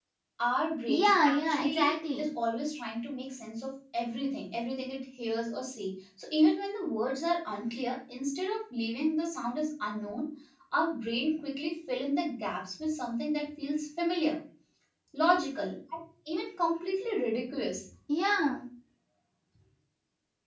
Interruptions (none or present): present